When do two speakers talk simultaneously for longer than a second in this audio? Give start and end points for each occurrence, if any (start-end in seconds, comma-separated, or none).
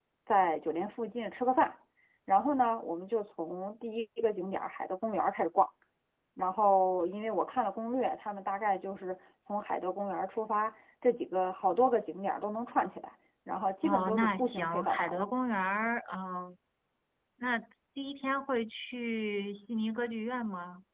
13.8-15.2